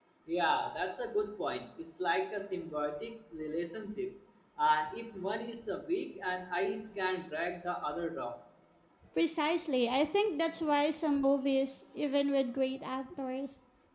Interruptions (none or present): none